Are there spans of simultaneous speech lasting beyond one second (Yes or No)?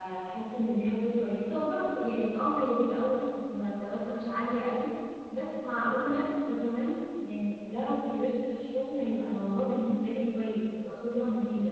No